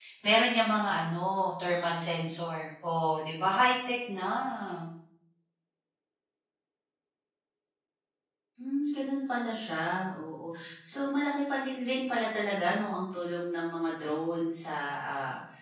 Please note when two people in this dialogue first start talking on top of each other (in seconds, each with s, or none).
none